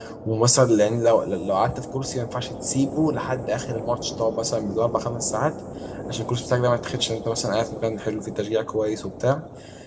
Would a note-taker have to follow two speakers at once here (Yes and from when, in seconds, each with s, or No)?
No